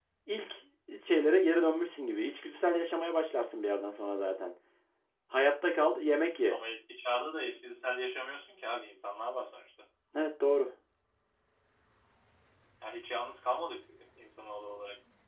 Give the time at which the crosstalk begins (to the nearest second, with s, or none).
none